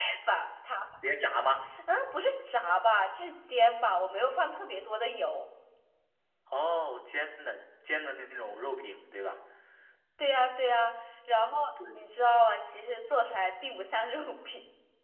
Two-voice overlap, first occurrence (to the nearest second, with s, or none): none